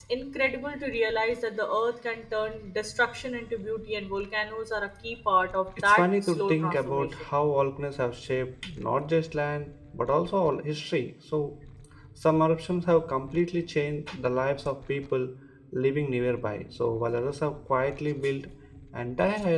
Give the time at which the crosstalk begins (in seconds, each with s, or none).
5.8 s